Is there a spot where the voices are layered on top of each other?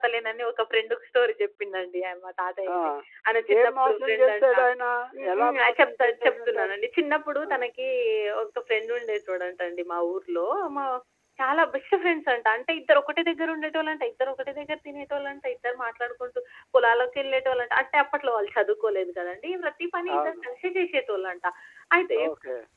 Yes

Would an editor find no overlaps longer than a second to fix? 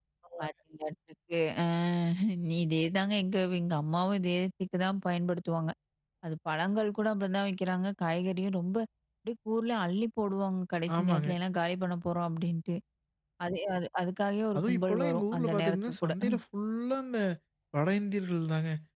No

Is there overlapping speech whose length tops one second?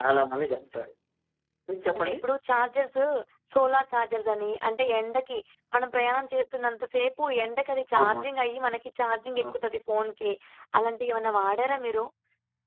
No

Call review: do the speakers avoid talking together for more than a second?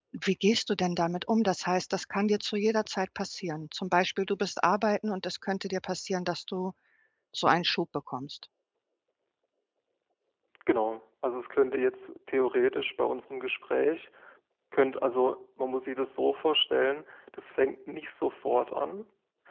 Yes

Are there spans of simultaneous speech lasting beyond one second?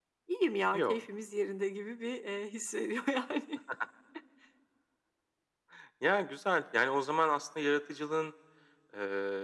No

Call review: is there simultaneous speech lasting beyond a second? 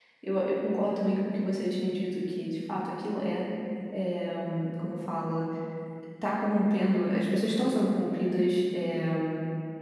No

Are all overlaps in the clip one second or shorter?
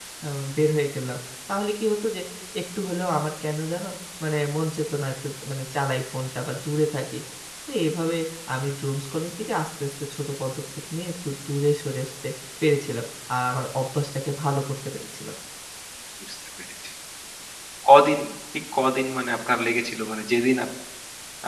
Yes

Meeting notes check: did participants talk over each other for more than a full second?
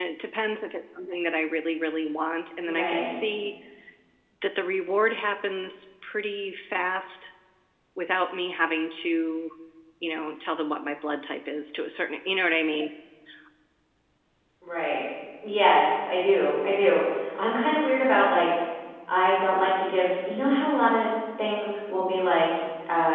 No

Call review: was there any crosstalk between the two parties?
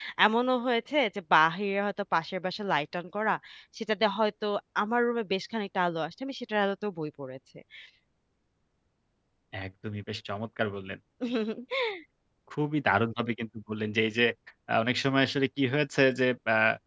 No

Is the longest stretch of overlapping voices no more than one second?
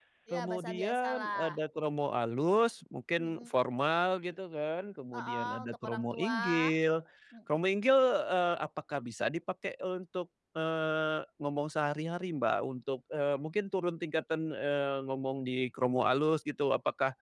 No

